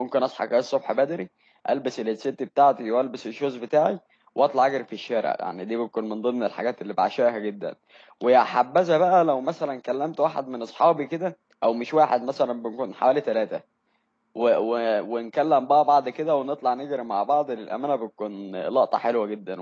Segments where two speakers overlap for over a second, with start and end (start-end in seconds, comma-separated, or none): none